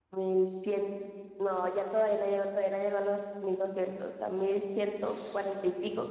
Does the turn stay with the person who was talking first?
No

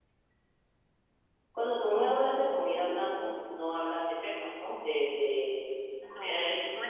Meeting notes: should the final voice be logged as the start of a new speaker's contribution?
Yes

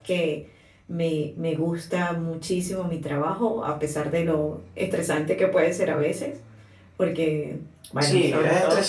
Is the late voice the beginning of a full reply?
Yes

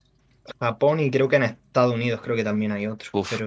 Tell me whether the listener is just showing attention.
No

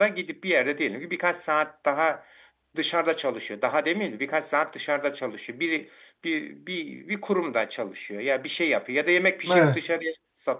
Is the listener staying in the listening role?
Yes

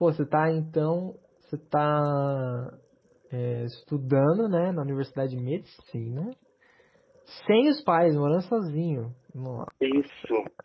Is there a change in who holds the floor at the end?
No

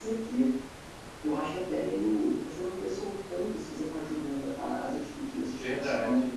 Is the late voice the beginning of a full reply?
Yes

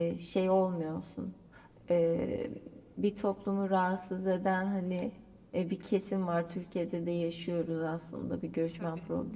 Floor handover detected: No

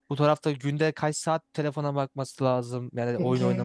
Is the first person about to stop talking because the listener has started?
No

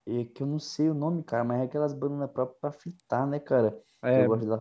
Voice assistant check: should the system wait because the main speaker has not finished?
Yes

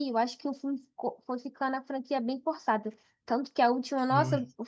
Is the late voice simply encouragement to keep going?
Yes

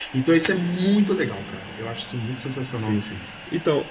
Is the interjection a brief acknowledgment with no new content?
No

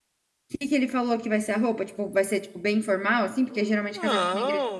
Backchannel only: No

